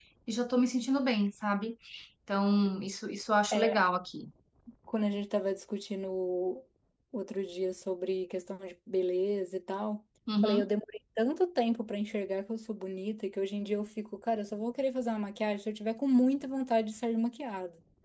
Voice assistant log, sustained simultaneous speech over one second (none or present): none